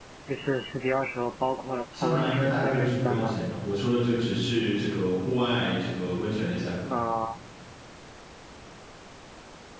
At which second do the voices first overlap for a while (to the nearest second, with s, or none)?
2 s